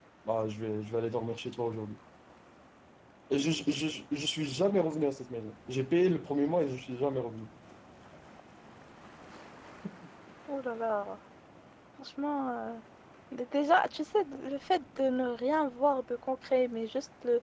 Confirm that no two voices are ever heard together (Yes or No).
Yes